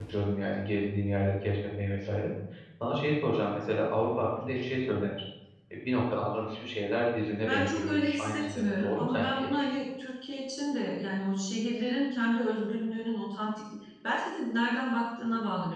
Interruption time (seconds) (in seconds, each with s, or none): 7.4 s